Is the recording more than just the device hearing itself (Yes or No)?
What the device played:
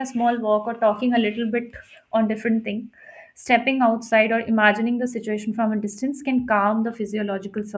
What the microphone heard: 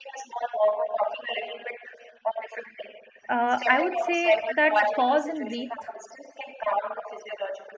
Yes